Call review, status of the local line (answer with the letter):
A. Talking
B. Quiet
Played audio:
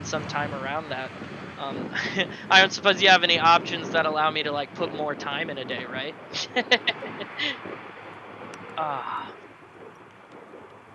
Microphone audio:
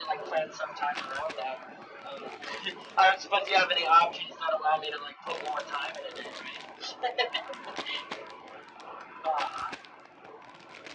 B